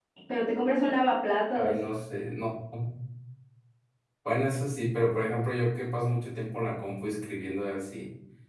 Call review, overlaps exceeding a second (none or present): none